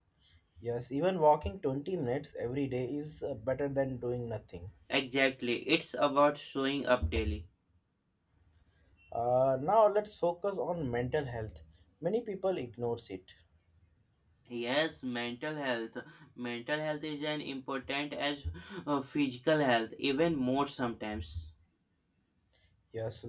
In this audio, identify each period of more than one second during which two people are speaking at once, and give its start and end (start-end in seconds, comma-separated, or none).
none